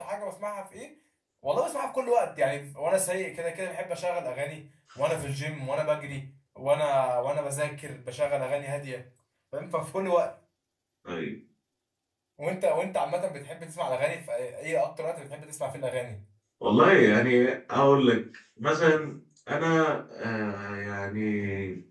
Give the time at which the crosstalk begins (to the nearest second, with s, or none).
none